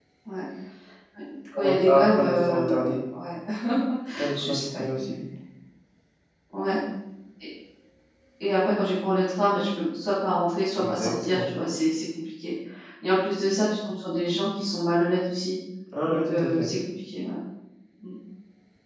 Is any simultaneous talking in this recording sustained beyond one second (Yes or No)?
Yes